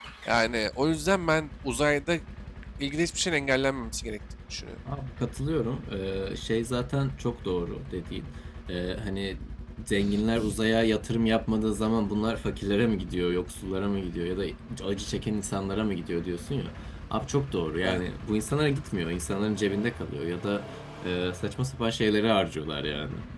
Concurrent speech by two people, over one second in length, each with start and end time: none

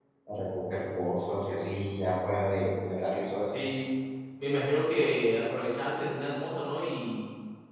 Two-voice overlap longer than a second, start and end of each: none

